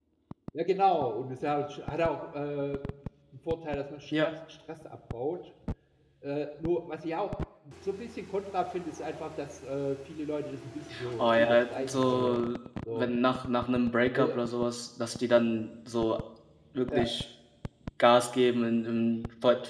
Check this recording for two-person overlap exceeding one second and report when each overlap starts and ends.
11.2-12.4

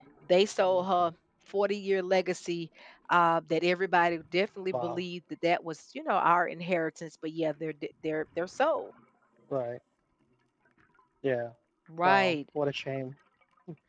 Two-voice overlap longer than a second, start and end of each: none

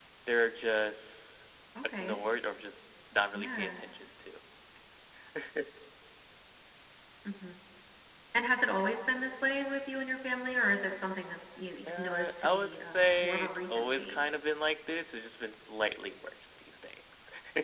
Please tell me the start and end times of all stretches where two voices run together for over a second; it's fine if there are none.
11.9-14.3

